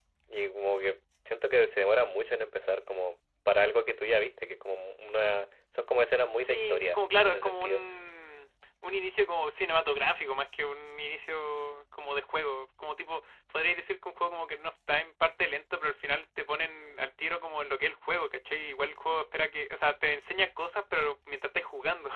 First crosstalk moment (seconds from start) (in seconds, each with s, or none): 6.4 s